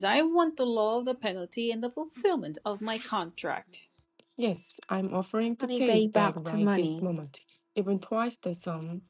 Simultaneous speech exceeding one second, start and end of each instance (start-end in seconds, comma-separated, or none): 5.6-7.0